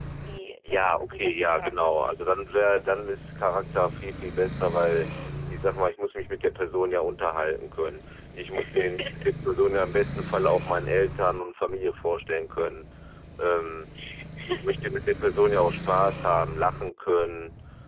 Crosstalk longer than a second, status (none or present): present